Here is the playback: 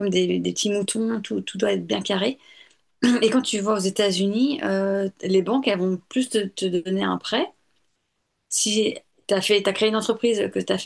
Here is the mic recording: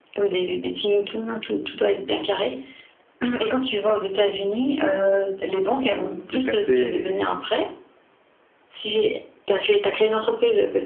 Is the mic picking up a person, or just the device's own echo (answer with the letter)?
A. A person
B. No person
A